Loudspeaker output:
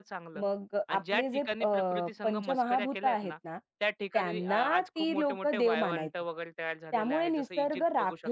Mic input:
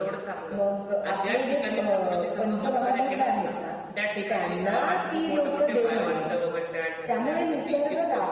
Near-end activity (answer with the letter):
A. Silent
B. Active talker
A